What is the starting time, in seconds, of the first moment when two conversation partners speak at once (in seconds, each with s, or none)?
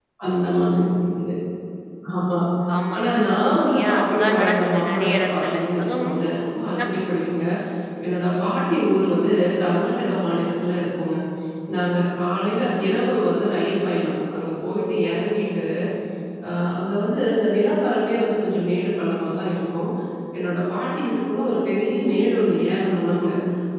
3.0 s